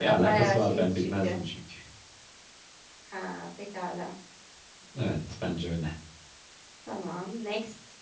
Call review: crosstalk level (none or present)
present